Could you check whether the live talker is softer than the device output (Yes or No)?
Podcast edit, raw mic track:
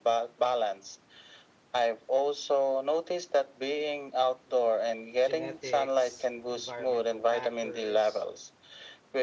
Yes